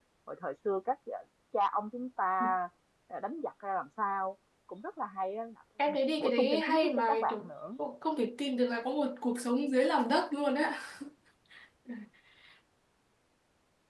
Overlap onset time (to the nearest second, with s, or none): 6 s